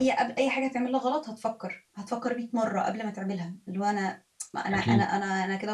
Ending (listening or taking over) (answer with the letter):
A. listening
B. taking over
A